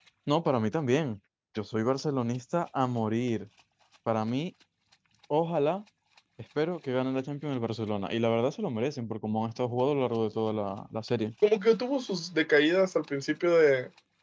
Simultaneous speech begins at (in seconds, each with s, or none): none